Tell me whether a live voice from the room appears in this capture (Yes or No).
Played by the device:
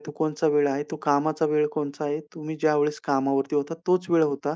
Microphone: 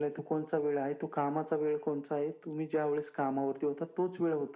No